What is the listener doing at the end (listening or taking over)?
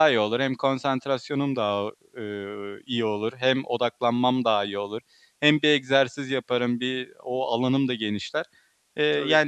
listening